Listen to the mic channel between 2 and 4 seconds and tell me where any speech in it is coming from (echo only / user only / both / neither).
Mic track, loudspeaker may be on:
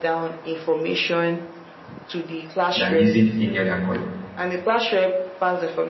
both